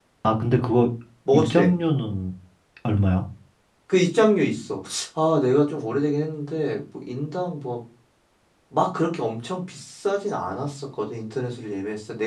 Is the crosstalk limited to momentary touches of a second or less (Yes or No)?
Yes